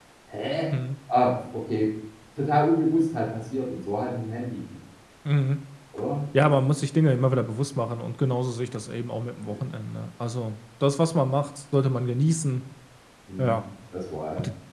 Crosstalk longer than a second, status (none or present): none